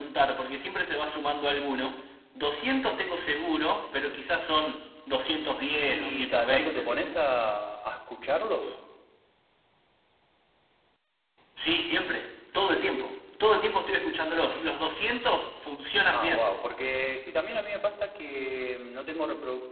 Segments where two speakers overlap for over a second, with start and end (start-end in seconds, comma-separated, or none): 5.9-7.1